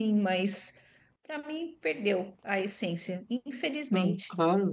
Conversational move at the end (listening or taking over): taking over